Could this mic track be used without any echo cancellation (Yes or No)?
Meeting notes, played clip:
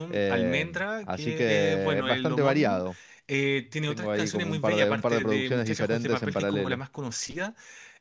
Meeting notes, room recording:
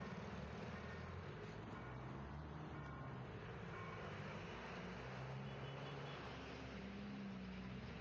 Yes